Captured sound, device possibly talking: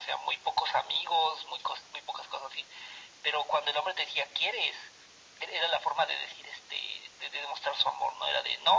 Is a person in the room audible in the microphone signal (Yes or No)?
No